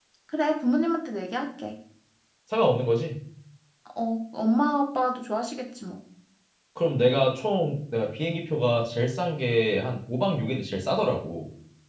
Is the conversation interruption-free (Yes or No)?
Yes